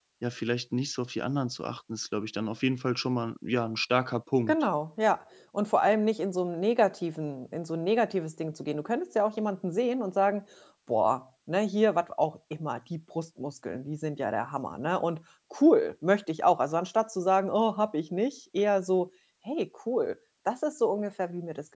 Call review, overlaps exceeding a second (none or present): none